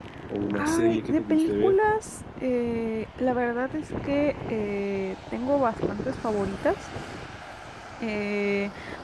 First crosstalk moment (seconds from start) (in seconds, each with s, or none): 0.5 s